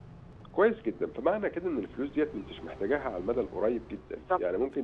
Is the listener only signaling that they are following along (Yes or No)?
Yes